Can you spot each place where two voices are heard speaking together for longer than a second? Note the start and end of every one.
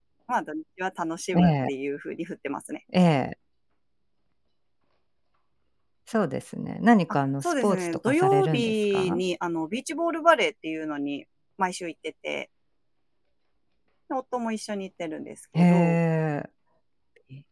7.1-9.2

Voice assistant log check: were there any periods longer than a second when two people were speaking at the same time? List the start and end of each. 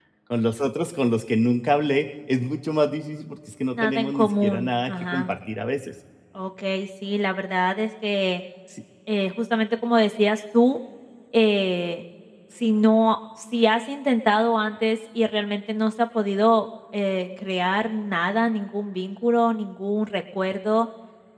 3.7-5.3

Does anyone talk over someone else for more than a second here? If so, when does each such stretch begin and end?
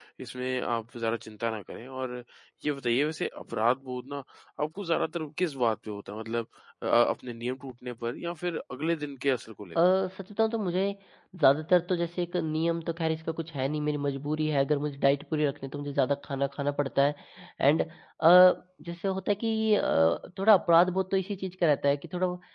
none

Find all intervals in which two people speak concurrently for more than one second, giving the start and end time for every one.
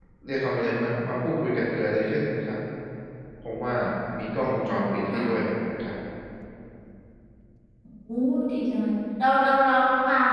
none

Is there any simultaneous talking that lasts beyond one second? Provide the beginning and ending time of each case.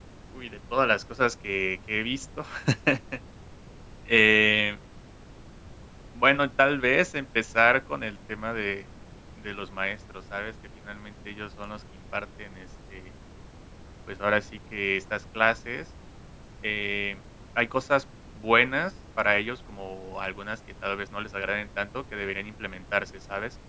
none

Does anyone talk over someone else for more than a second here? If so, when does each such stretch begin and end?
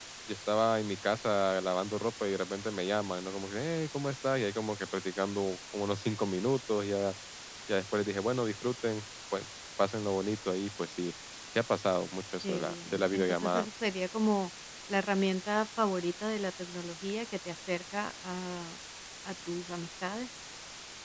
12.4-13.7

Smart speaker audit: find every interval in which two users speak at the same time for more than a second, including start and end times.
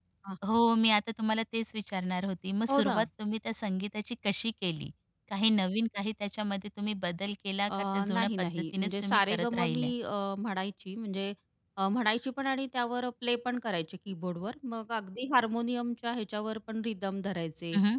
7.7-9.9

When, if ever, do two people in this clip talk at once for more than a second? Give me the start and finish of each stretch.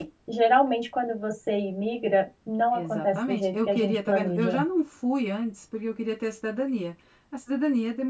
2.7-4.6

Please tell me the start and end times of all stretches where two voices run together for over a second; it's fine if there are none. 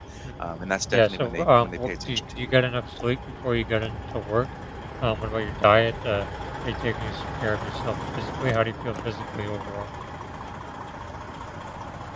0.9-2.5

